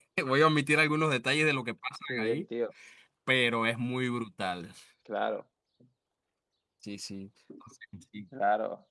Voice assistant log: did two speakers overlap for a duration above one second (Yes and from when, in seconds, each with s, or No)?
No